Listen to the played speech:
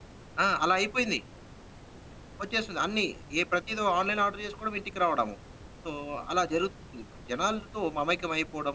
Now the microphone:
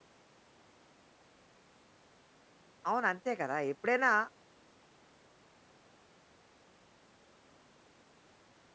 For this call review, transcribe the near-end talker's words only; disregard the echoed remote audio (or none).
అవును. అంతే కదా! ఎప్పుడైనా